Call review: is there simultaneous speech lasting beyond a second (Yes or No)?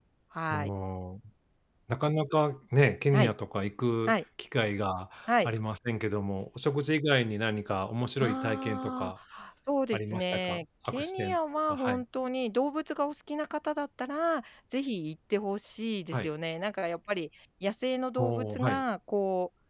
Yes